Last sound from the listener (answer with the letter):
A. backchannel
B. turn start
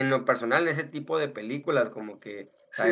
B